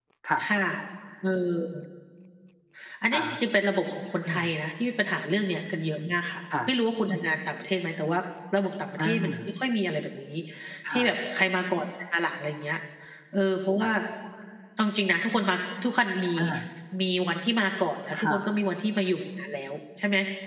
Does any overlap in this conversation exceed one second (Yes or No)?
No